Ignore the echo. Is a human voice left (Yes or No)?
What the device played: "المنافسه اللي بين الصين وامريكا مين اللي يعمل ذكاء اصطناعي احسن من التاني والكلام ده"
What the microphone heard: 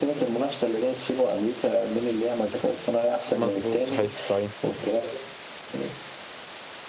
Yes